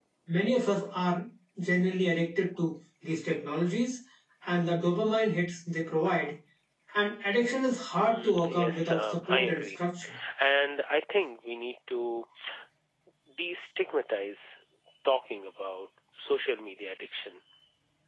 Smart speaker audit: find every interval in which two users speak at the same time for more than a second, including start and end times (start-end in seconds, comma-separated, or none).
8.0-9.7